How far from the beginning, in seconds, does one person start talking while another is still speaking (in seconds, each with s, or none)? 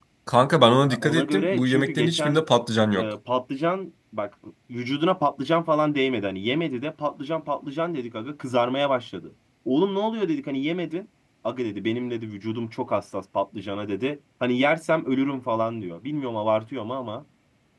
0.8 s